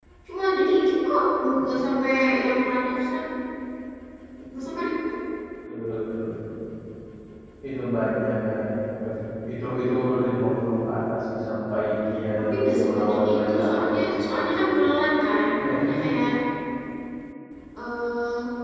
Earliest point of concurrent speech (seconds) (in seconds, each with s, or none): 12.5 s